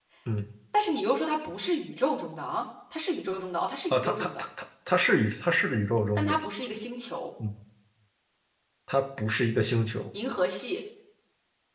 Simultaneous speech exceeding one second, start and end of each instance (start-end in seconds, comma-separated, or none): none